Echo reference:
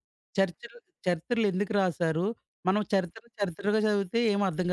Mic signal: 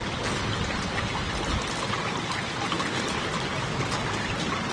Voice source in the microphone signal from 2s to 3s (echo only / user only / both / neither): neither